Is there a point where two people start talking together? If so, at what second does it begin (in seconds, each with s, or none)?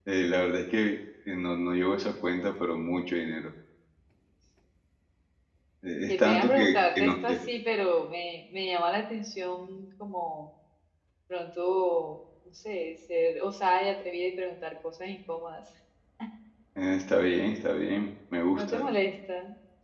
6.1 s